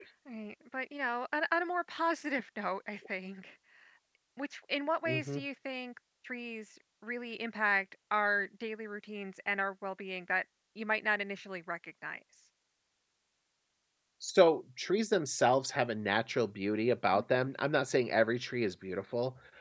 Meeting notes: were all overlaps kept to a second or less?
Yes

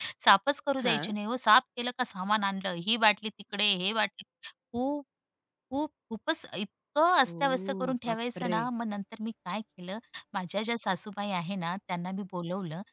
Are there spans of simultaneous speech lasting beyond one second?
Yes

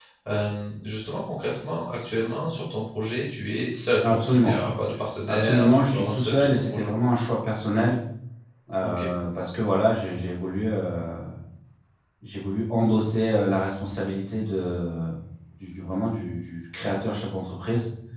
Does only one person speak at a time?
No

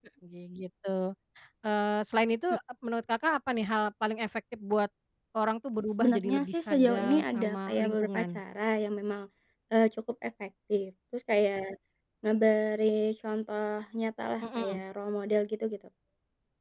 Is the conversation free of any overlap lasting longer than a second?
No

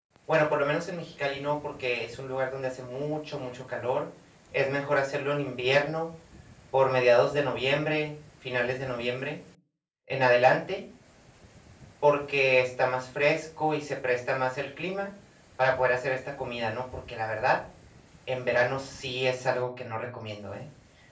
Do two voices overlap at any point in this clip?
No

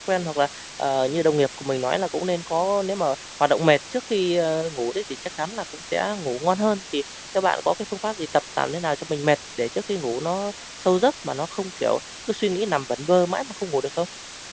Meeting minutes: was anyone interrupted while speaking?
No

